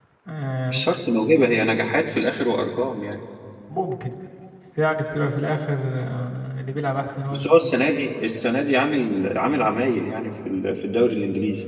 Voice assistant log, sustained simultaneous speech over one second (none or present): none